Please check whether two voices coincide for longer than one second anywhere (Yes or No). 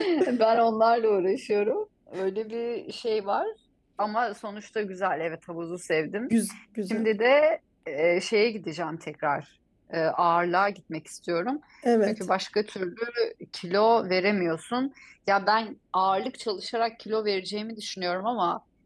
No